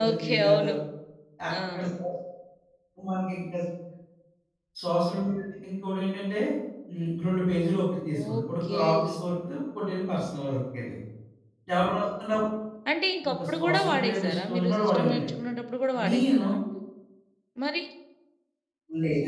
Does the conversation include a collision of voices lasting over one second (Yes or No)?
Yes